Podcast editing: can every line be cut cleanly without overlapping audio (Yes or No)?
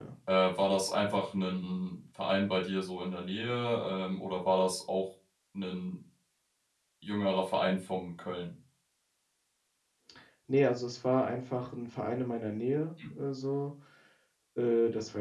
Yes